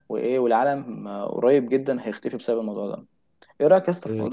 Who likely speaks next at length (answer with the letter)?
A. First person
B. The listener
A